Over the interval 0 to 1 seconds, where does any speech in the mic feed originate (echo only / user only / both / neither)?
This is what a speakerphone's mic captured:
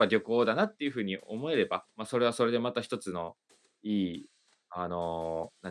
user only